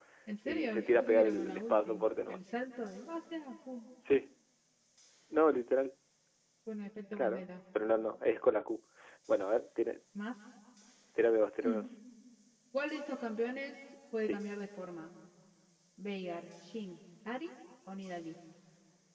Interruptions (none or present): present